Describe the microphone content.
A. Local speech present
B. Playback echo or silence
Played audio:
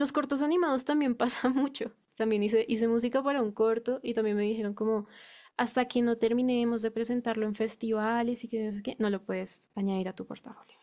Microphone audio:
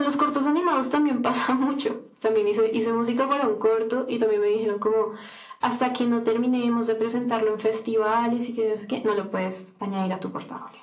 B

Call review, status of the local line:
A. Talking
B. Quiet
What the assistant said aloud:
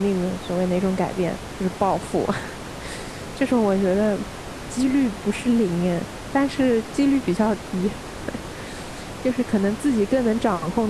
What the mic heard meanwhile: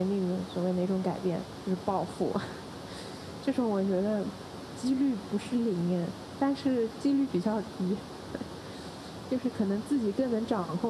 B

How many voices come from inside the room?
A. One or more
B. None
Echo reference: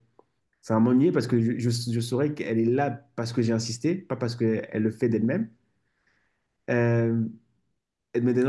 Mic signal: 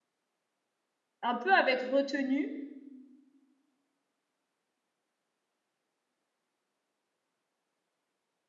A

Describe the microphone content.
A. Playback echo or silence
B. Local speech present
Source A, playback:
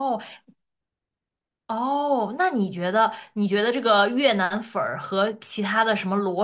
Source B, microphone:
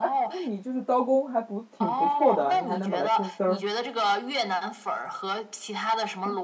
B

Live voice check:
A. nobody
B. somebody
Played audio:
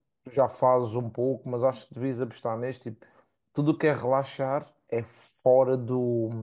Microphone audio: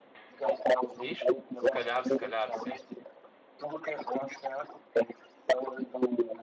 B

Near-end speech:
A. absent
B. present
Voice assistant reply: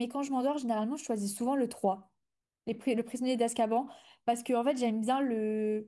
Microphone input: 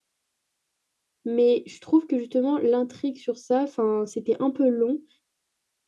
B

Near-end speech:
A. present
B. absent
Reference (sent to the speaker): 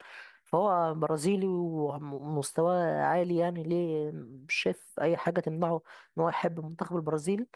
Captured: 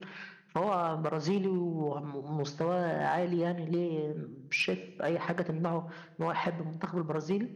B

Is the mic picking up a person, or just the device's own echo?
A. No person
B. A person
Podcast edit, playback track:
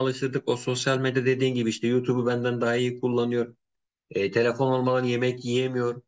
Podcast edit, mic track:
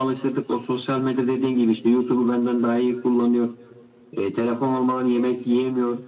A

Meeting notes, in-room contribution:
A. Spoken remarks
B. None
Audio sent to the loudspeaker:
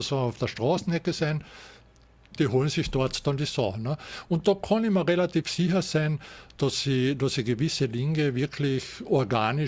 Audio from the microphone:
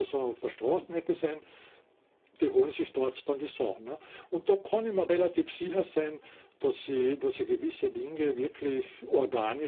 B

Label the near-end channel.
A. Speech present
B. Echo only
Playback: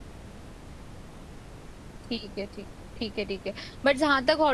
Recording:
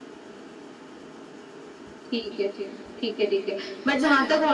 A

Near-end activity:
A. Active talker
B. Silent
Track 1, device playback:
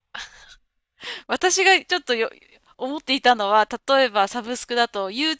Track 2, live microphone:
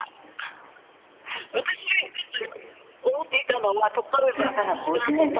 A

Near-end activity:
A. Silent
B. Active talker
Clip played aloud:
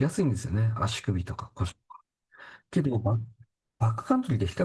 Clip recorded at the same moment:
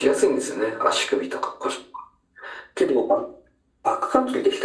A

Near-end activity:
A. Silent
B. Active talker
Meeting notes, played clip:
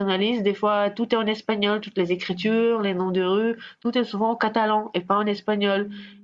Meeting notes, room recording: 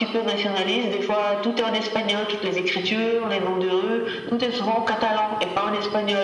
A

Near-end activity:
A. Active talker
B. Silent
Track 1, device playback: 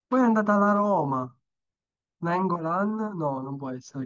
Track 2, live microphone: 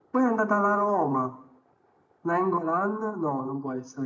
B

